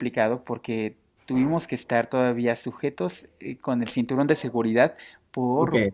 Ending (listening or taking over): listening